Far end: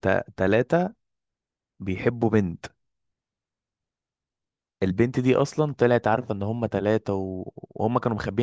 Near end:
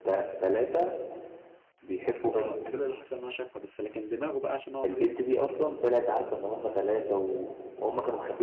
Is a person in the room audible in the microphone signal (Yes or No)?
Yes